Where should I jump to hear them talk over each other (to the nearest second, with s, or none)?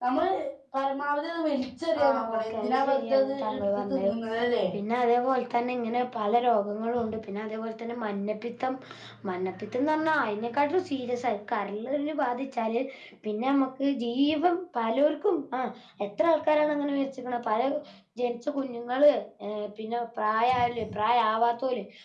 2 s